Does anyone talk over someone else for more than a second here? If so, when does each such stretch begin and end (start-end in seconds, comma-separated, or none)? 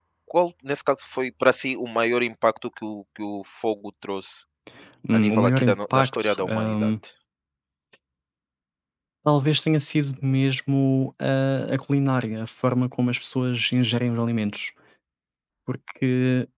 5.1-6.9